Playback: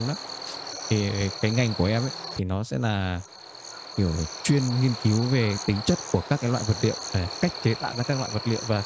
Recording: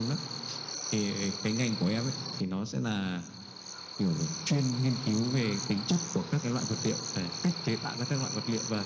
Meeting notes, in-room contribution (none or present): none